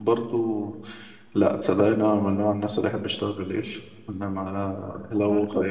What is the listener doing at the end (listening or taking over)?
listening